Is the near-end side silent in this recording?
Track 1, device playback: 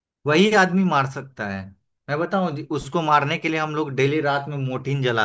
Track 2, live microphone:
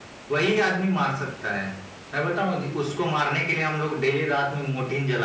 Yes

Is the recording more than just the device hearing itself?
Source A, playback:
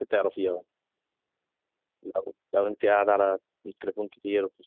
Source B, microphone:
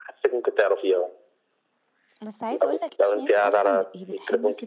Yes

